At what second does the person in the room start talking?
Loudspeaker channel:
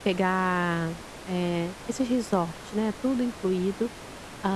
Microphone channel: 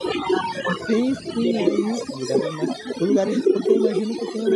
0.8 s

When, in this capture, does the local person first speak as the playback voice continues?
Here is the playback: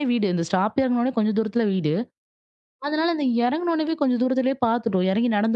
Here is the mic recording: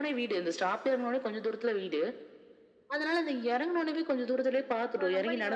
4.4 s

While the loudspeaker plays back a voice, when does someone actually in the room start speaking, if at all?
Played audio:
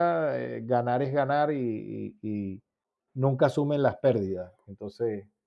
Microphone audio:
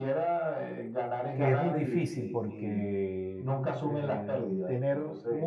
1.3 s

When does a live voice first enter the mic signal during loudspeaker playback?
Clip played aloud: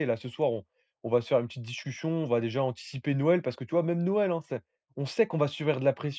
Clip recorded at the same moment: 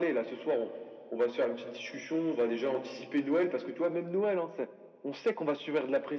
none

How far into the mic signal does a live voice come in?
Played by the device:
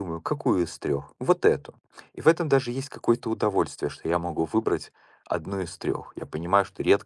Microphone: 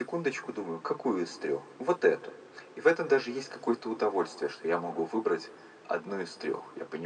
none

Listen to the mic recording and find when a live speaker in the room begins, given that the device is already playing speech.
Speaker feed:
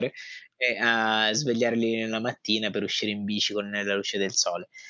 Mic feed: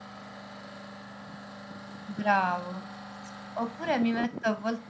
2.0 s

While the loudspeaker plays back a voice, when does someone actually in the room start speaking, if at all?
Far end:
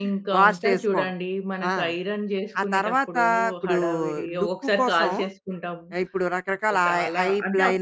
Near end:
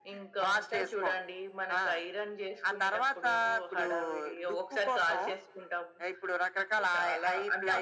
none

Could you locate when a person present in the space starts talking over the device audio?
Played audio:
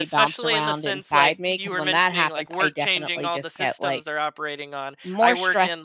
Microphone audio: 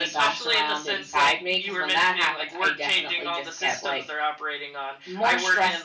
none

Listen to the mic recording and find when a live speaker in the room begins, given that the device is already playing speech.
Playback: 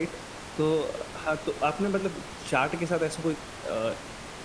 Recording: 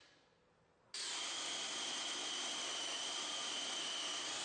none

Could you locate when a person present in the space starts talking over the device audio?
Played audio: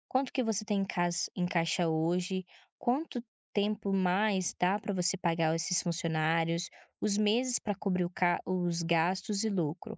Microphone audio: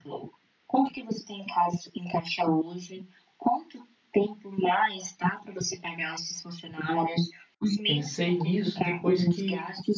7.8 s

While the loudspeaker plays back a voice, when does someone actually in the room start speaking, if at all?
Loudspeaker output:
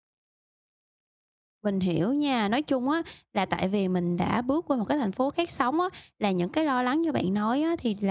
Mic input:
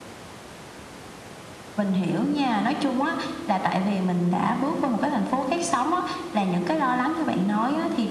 none

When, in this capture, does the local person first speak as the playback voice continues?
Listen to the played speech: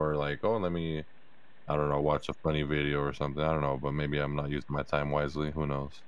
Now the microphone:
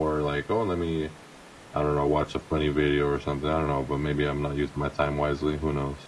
none

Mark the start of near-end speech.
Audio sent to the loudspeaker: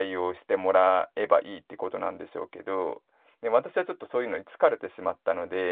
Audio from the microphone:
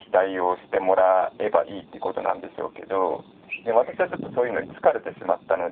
none

